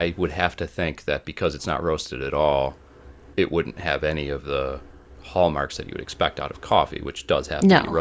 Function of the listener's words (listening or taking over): listening